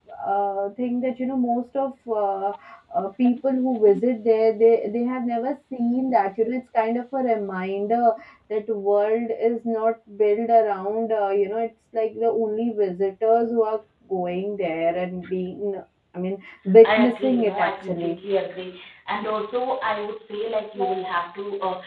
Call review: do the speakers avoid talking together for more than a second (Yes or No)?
No